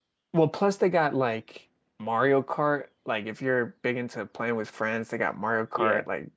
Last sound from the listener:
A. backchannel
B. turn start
B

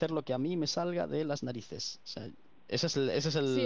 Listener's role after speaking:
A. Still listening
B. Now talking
B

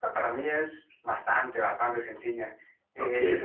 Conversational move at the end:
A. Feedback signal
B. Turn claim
A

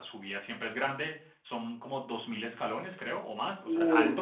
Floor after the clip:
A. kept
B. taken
A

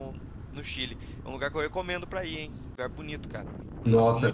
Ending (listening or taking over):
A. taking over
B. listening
A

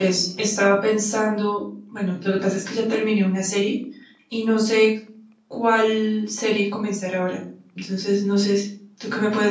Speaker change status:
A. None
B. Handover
B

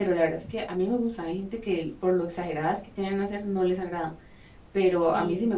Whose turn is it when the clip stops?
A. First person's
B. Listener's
A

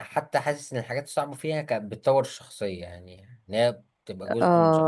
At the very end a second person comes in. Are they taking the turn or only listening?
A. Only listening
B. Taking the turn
B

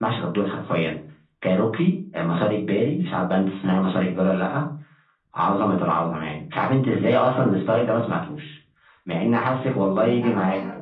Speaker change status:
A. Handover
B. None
A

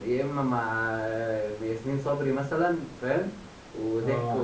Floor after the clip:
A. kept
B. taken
B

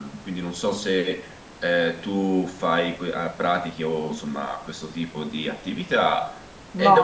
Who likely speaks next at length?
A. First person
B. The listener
B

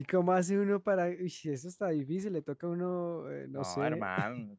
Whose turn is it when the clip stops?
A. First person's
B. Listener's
B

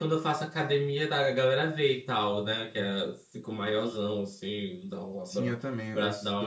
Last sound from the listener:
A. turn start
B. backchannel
A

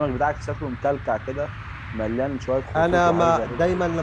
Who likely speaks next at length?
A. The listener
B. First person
A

